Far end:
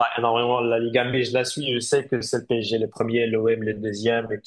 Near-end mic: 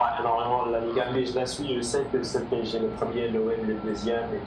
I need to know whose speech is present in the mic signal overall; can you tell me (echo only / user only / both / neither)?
echo only